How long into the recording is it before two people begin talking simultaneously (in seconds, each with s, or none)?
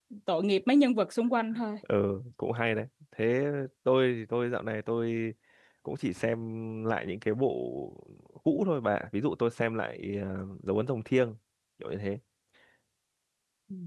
none